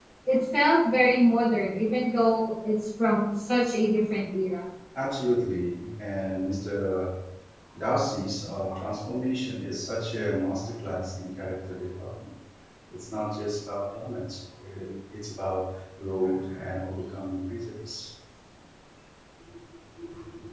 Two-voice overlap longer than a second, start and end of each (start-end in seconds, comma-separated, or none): none